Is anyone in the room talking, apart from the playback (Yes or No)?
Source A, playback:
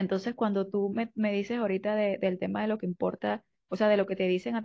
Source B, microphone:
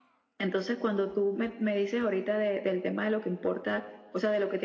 No